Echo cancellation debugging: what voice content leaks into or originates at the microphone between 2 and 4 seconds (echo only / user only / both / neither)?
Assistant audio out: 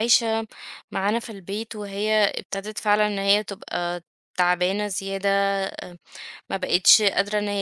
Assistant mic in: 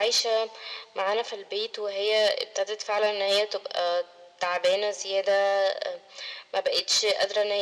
echo only